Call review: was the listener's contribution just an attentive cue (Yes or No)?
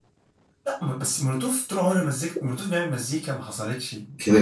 No